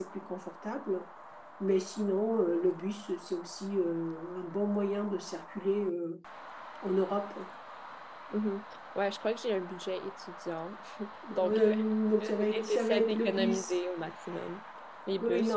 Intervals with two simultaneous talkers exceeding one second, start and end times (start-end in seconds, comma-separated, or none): 12.2-13.7